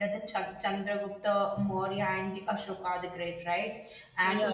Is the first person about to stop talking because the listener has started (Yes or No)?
No